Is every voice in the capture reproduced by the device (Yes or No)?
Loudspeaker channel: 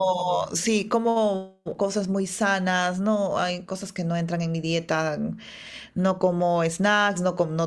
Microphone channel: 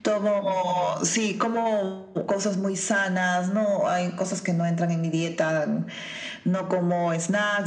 Yes